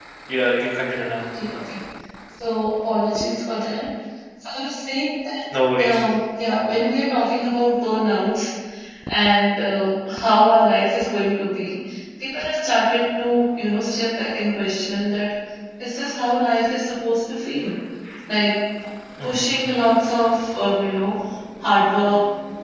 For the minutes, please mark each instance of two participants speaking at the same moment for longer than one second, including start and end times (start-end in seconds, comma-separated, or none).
none